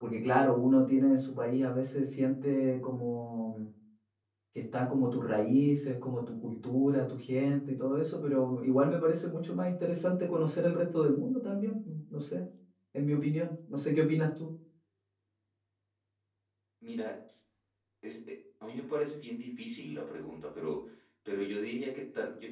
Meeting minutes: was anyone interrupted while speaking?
No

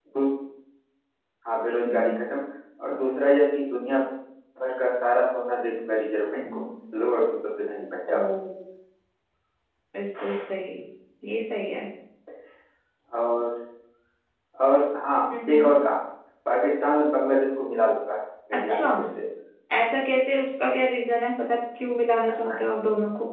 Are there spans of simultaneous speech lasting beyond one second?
No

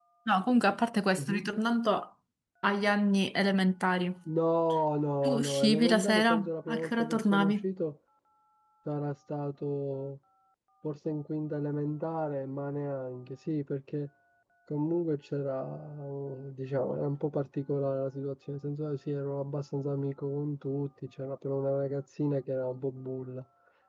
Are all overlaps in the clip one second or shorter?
No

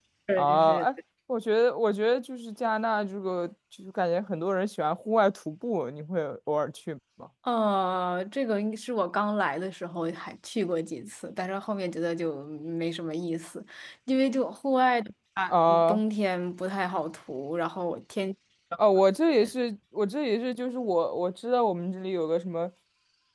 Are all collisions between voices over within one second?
Yes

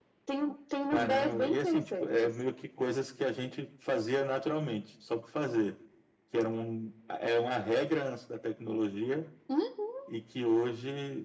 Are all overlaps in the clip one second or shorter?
No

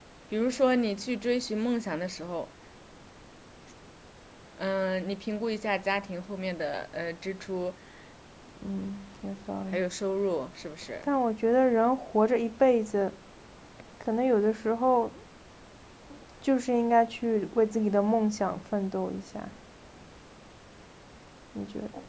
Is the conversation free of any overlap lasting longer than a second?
Yes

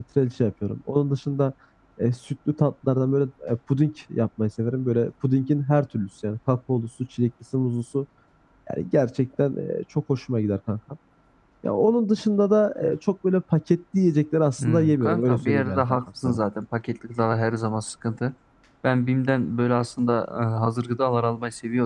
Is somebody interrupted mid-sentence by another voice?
Yes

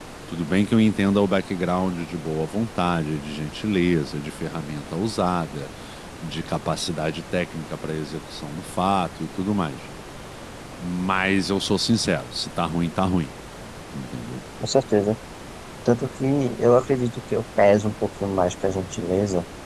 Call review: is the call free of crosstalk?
Yes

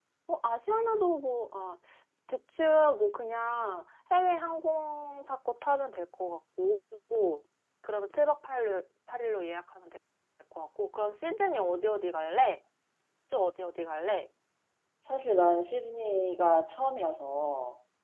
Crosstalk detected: No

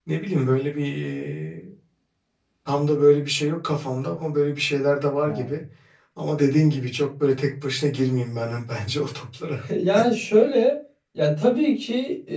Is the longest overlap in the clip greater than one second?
No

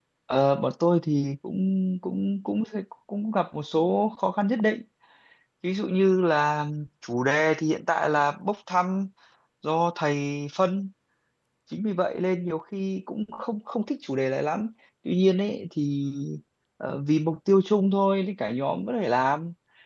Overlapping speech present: No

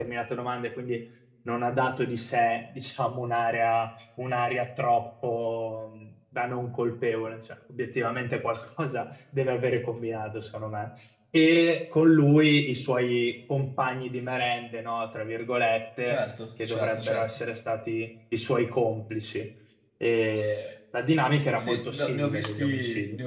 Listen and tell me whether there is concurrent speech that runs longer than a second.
Yes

